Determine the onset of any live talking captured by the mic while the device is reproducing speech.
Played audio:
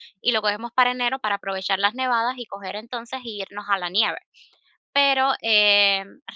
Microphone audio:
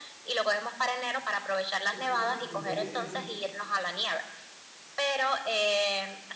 1.9 s

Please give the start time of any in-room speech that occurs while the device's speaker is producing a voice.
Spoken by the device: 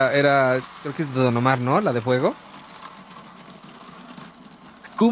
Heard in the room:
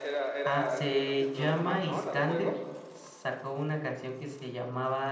0.4 s

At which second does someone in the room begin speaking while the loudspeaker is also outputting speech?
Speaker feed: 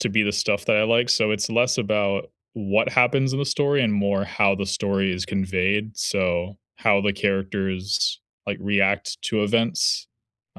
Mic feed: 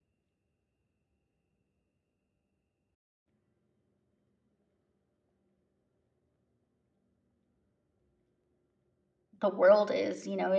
9.4 s

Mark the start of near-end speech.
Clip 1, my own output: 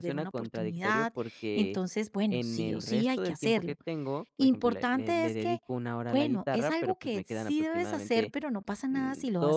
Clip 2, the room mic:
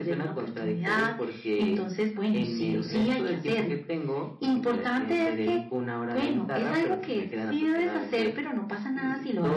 none

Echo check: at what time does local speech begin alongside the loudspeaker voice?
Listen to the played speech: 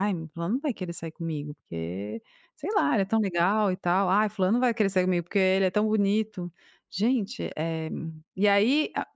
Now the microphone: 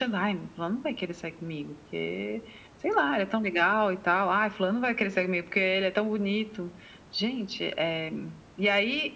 none

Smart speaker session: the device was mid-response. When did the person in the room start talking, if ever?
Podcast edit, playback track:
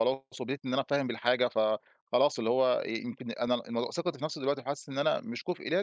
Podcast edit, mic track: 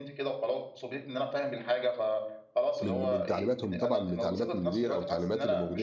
2.8 s

